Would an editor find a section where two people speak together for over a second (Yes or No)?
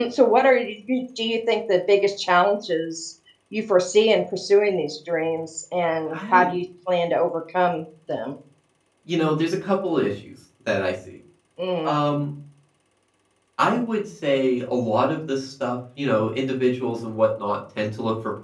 No